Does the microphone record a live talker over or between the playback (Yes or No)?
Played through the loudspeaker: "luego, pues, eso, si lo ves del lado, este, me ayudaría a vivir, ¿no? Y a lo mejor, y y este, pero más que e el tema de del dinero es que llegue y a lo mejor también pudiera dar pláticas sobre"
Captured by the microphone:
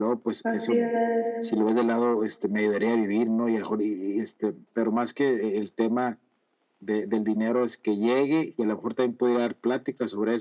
Yes